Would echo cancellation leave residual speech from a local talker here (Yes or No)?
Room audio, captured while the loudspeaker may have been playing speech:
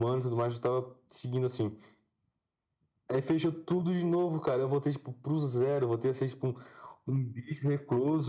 No